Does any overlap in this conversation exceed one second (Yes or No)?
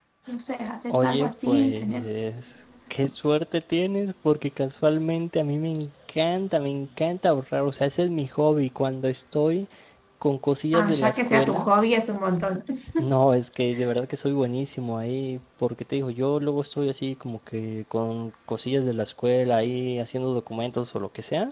Yes